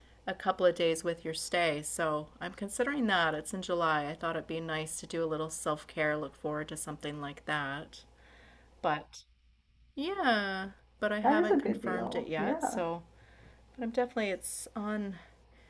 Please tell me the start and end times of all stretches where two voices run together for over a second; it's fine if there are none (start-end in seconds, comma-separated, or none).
11.2-12.8